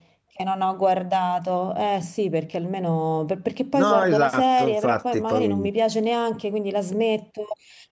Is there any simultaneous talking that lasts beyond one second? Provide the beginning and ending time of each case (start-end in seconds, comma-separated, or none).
3.7-5.7